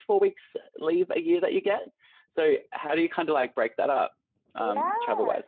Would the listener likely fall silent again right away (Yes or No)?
No